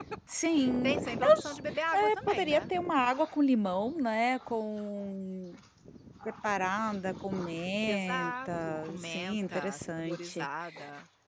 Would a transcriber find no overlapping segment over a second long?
No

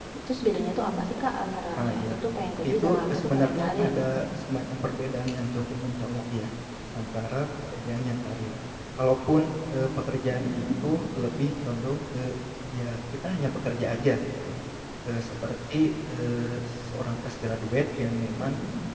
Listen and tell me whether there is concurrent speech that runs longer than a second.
Yes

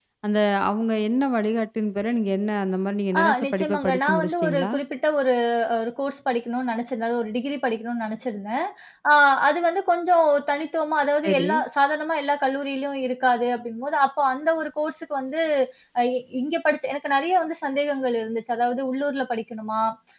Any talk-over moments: Yes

